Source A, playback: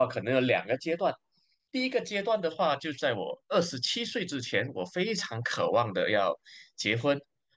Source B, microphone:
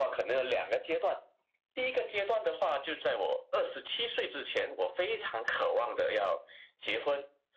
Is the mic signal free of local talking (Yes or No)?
Yes